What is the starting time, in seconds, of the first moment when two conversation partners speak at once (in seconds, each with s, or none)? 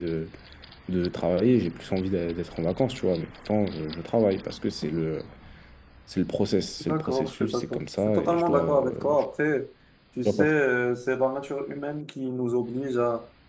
6.8 s